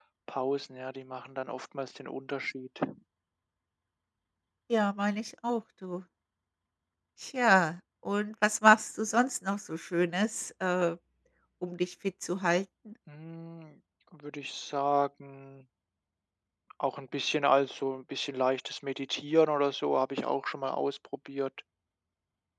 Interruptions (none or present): none